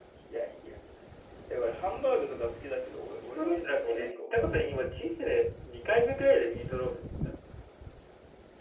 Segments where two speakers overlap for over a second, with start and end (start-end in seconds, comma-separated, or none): 3.2-4.7